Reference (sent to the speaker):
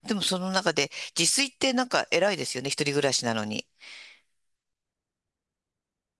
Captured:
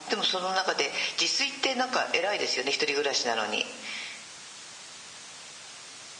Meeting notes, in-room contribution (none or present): none